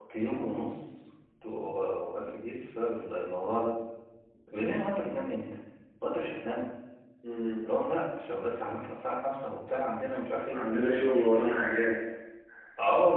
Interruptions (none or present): none